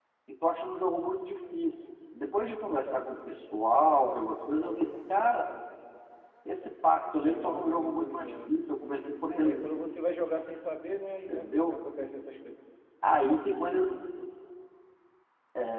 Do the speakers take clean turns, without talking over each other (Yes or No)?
No